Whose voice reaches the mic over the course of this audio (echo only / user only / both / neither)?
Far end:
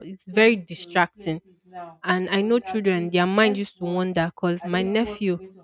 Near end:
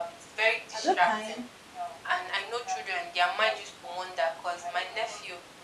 both